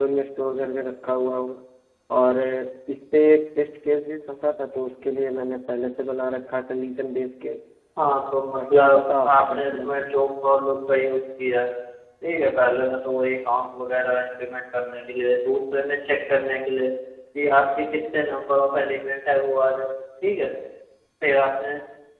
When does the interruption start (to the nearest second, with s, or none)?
9 s